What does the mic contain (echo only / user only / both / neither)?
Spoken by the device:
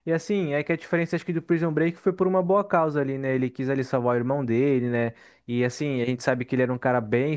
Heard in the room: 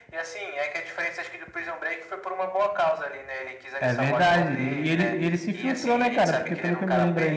both